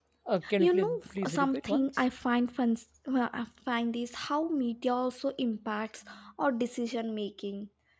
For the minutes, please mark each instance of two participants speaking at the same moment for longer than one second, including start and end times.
0.6-2.0

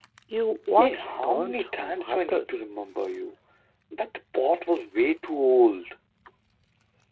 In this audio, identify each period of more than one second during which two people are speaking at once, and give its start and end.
0.8-2.4

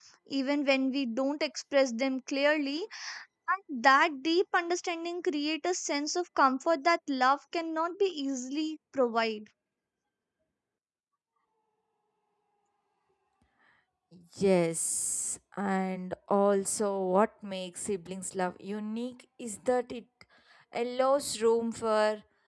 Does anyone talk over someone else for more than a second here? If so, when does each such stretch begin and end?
none

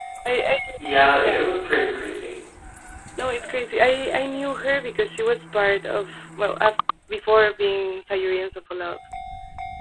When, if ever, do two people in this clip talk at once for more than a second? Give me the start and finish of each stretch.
none

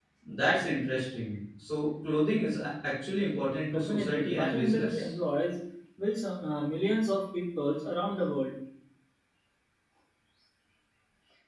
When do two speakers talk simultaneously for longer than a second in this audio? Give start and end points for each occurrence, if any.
3.7-5.0

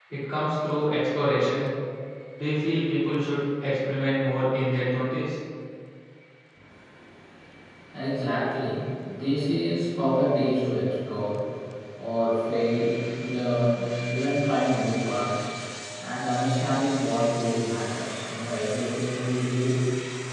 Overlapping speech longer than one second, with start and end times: none

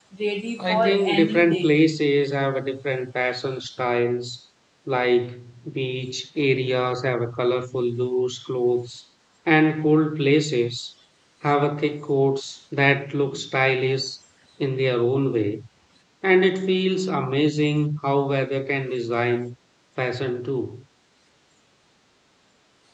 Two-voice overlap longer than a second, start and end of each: 0.6-1.8

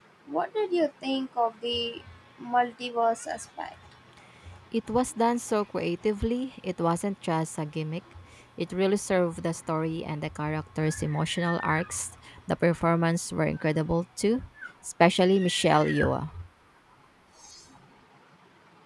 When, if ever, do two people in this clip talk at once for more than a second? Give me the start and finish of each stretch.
none

